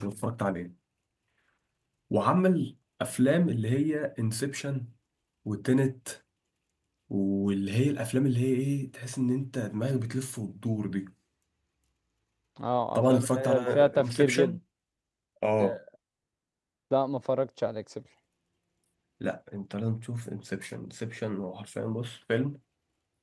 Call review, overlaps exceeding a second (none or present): present